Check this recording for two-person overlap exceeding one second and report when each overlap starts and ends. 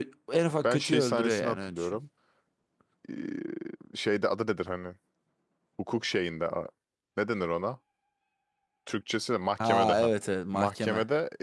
0.6-2.0

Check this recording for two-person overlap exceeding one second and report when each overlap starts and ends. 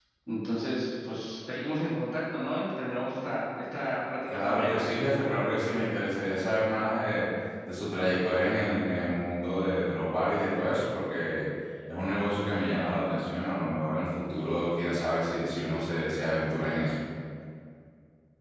none

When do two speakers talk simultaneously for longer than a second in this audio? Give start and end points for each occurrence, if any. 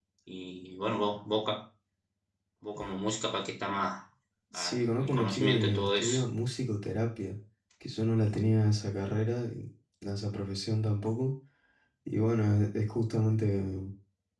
4.5-6.2

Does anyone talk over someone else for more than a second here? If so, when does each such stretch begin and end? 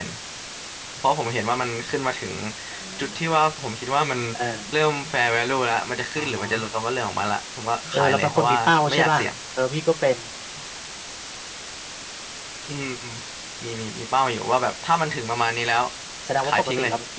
7.9-9.3

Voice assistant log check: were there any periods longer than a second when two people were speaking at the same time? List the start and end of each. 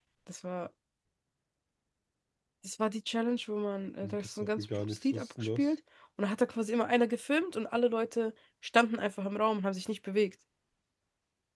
4.0-5.7

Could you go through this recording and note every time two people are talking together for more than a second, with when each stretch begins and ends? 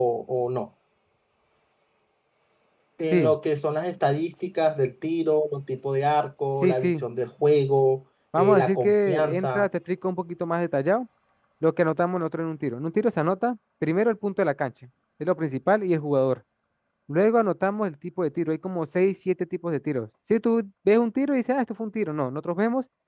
8.4-9.7

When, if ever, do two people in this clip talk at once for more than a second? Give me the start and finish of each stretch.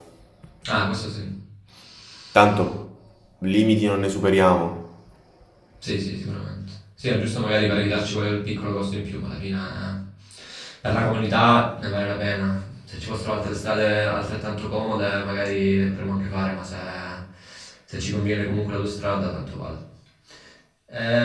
none

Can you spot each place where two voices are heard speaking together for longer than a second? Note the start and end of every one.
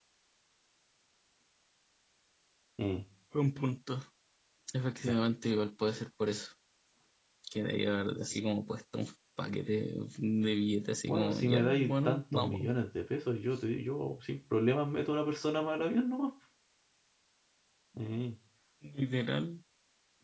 11.1-12.7

